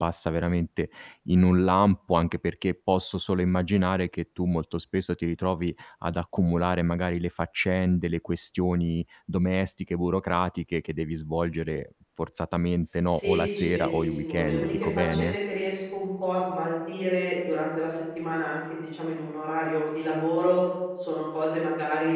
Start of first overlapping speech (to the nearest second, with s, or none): 13 s